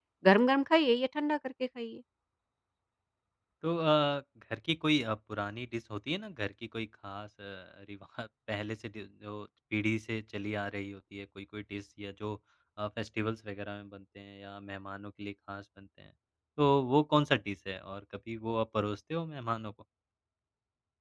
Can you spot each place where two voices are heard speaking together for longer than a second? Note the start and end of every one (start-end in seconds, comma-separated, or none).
none